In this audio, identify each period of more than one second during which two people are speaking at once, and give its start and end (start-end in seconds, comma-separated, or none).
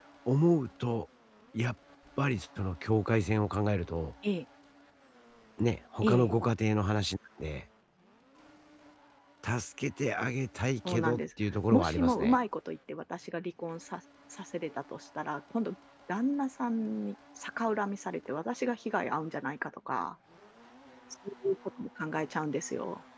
10.8-12.4